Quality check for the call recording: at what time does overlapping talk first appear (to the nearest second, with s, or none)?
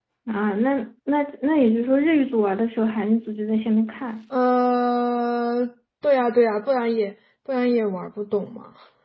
none